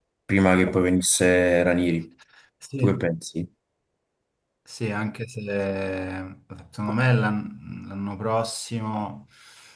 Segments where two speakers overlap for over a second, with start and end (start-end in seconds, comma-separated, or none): none